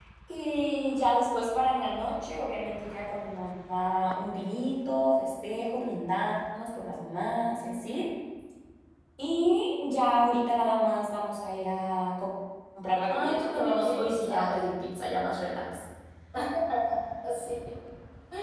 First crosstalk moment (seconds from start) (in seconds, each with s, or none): 13.1 s